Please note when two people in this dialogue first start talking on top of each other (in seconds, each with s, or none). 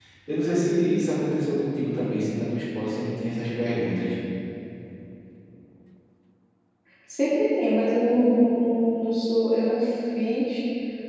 none